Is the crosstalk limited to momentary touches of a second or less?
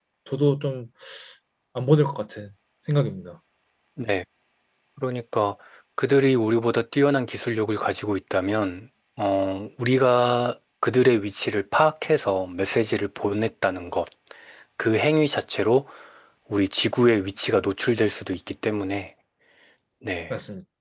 Yes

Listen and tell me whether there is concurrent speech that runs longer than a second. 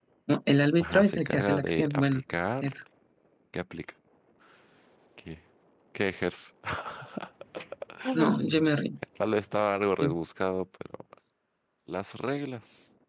Yes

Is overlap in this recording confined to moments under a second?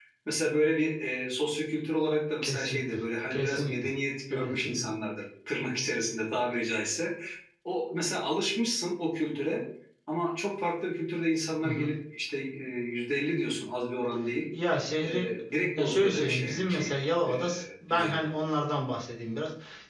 No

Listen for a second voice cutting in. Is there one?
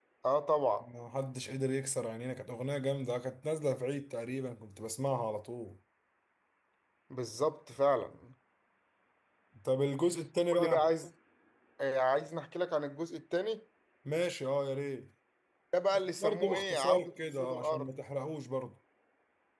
Yes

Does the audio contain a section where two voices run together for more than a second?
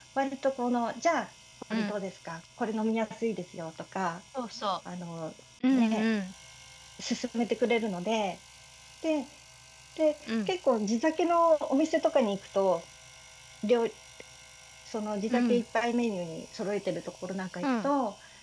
No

